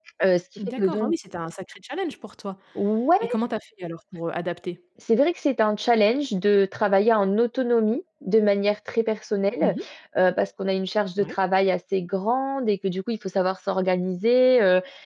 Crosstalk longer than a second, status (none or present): none